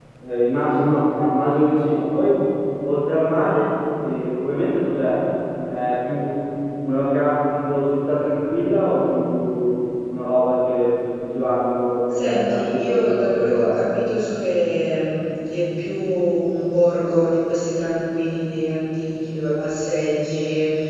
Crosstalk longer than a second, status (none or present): present